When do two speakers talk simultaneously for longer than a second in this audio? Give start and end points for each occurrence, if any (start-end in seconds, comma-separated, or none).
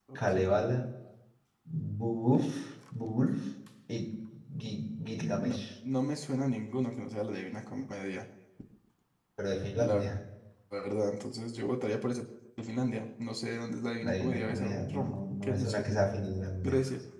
14.0-15.9